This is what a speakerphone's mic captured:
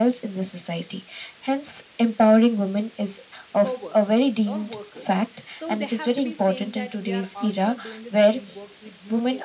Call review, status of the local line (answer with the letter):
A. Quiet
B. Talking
B